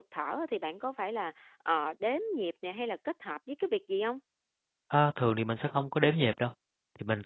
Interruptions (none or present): none